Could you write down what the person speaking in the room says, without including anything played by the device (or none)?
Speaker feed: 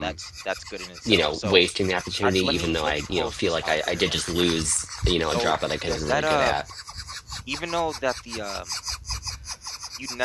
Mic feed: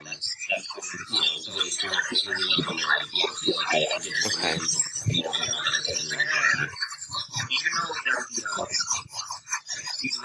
Okay.